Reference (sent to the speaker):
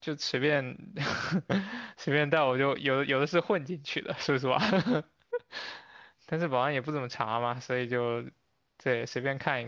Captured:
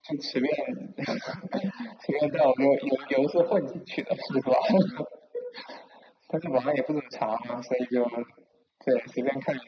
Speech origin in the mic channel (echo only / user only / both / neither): echo only